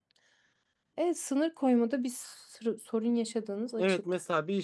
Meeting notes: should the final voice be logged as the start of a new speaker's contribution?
Yes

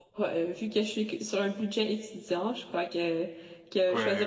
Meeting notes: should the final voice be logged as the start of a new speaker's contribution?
No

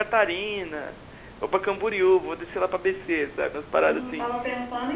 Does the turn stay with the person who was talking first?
No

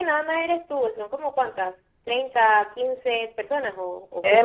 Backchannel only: No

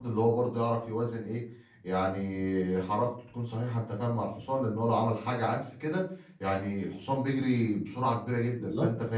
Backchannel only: Yes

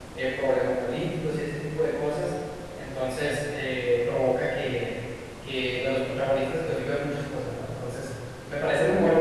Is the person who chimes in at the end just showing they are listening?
Yes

